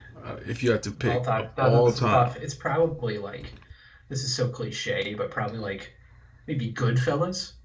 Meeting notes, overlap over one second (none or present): present